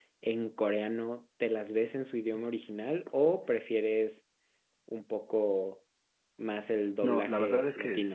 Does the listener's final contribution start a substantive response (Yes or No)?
Yes